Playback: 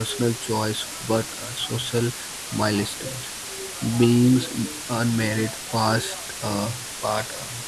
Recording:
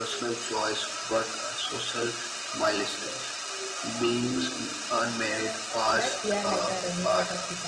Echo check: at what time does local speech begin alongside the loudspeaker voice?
6 s

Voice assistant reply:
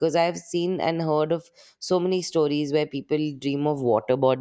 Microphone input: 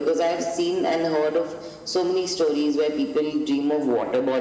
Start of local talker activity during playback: none

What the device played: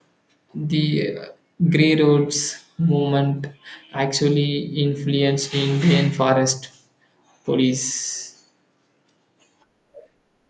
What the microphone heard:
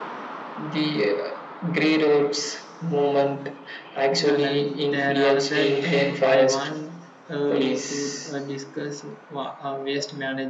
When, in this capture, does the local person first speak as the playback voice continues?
4 s

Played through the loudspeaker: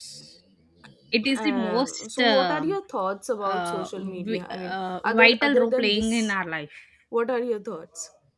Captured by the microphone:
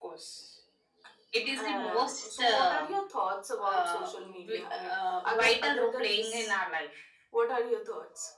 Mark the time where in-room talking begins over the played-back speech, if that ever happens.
none

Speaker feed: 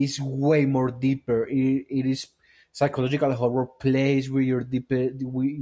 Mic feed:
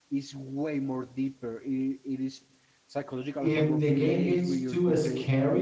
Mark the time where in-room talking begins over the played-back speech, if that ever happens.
3 s

